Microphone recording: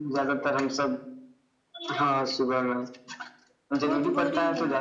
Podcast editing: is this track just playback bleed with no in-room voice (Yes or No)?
No